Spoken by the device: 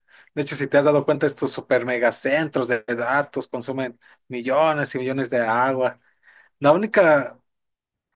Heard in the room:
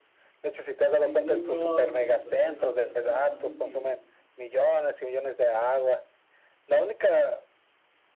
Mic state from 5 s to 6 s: echo only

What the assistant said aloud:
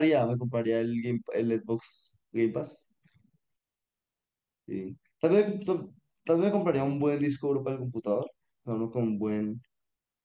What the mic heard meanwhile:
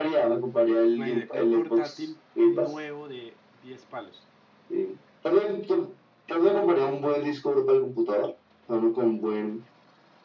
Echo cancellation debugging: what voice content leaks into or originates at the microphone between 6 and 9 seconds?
echo only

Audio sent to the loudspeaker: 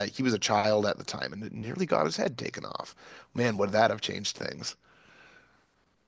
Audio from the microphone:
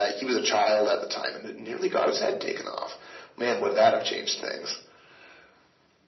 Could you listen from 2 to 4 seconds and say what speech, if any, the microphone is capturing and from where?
echo only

